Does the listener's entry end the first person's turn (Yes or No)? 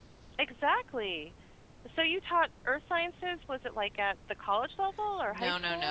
Yes